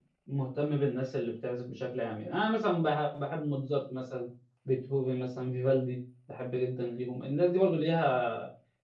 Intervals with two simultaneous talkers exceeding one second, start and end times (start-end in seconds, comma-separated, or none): none